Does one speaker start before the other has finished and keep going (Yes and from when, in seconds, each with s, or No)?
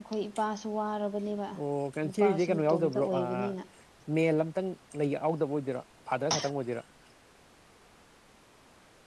Yes, from 2.0 s